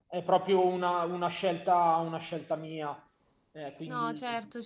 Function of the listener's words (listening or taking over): taking over